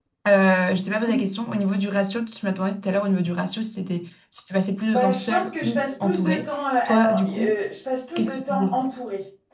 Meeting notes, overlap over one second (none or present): present